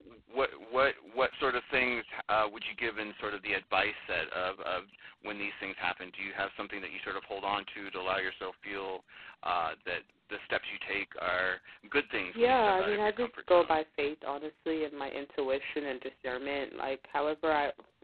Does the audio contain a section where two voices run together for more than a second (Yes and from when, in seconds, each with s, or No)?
Yes, from 12.3 s